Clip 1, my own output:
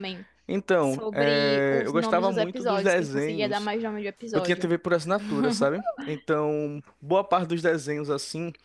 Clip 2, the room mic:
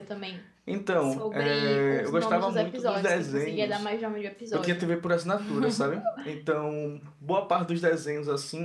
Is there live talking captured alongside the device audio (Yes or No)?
No